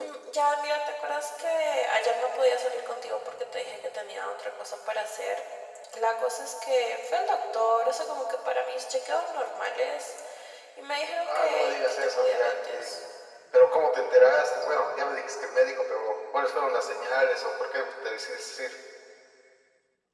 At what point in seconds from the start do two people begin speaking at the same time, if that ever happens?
11.2 s

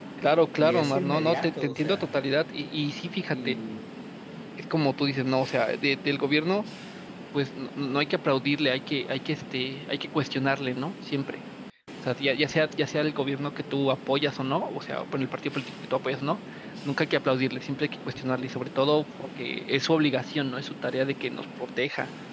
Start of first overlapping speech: 0.6 s

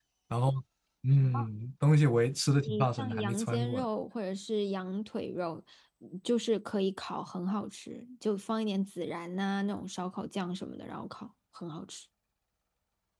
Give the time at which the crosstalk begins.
2.6 s

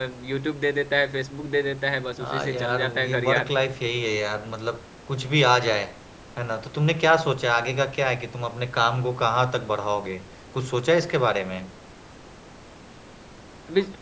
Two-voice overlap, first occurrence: 2.2 s

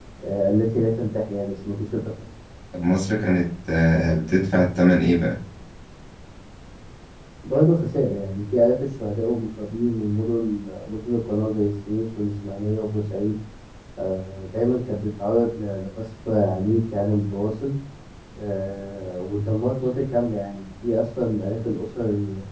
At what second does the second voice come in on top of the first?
none

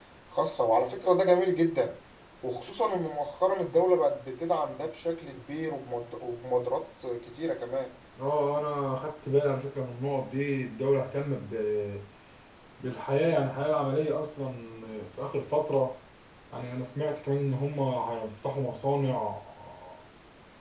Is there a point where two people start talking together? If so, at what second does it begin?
none

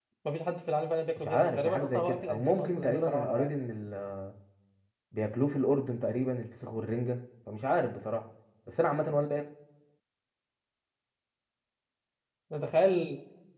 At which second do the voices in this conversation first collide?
1.2 s

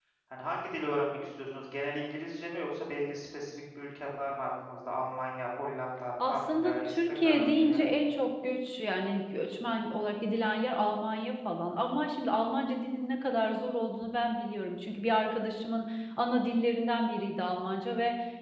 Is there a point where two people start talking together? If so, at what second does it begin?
6.2 s

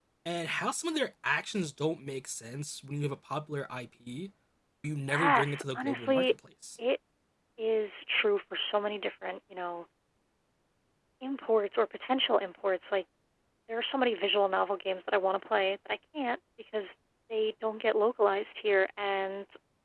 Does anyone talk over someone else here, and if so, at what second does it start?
5.1 s

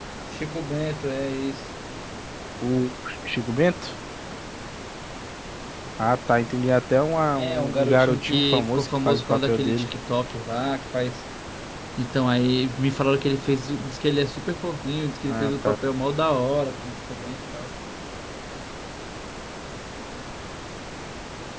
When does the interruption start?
7.4 s

